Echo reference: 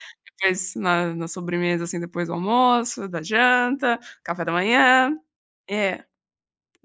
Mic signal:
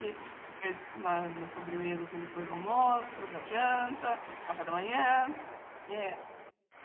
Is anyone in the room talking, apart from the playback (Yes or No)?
No